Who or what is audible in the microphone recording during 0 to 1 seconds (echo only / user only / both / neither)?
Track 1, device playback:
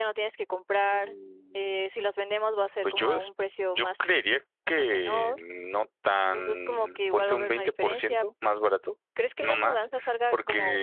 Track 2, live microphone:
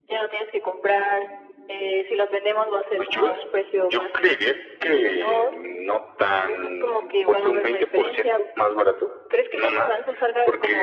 echo only